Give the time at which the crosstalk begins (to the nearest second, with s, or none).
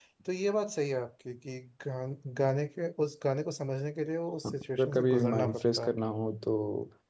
4 s